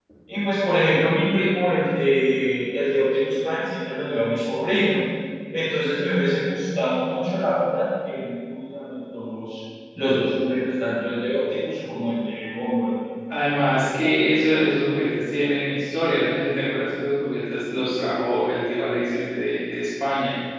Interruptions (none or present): none